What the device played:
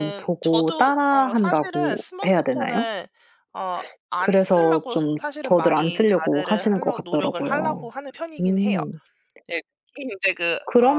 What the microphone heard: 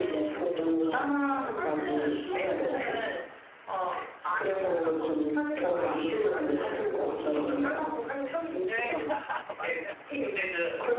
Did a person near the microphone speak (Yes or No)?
Yes